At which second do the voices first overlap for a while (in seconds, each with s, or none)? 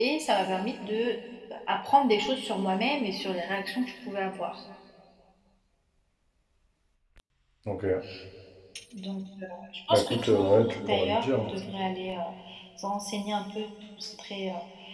9.9 s